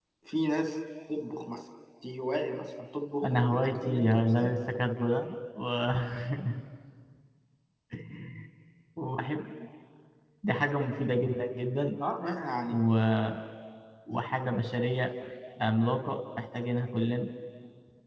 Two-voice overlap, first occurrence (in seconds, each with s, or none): 3.2 s